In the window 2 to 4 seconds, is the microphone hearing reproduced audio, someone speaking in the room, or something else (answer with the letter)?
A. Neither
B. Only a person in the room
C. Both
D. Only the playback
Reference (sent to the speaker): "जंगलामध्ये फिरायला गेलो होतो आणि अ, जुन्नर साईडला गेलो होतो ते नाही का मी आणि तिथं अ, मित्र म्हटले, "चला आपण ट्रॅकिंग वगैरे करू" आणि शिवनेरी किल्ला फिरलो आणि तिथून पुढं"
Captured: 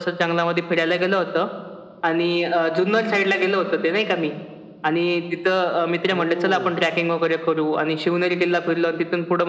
D